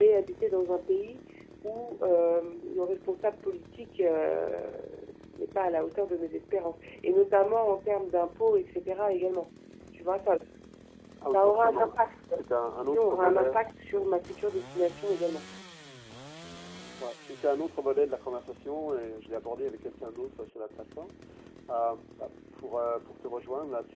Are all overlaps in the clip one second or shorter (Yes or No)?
No